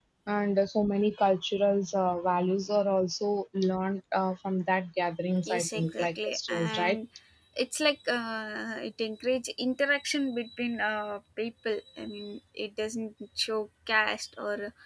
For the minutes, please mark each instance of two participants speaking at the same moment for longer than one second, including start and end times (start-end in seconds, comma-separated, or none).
5.4-7.0